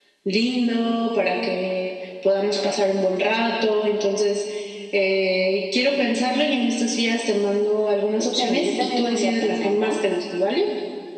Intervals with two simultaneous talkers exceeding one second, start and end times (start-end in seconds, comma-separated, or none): 8.2-10.0